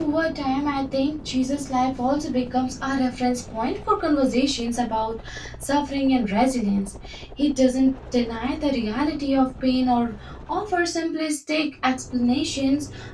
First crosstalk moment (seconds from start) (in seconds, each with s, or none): none